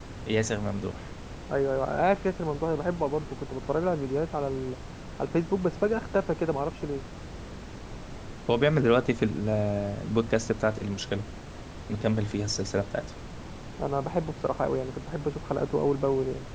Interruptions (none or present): none